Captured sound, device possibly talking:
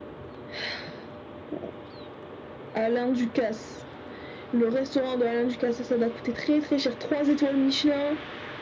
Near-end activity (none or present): none